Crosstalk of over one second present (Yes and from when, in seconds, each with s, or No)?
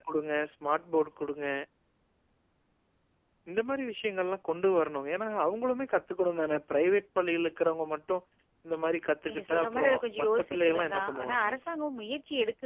Yes, from 9.3 s